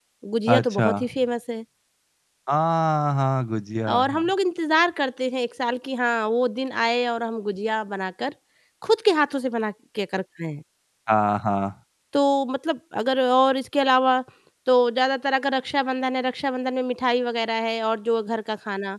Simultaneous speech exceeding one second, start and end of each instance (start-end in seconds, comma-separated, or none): none